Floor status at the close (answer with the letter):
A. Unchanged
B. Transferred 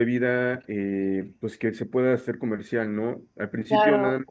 A